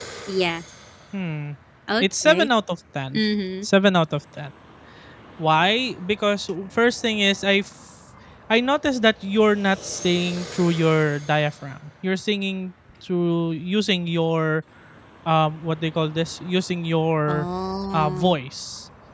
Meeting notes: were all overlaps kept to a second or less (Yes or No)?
Yes